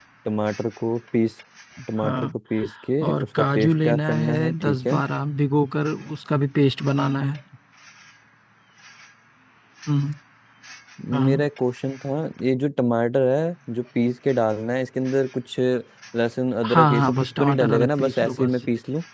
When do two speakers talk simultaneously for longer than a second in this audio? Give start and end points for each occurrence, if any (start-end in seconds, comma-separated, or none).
3.1-5.0, 16.7-18.5